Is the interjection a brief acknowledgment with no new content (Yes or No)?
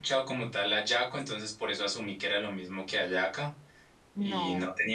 Yes